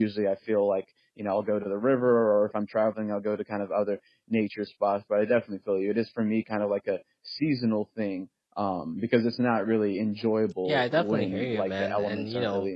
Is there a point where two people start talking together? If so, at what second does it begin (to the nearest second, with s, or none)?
11 s